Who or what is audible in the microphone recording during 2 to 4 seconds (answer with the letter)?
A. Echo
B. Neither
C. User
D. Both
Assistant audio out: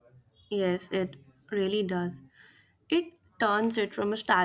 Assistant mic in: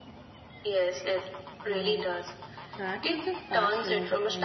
D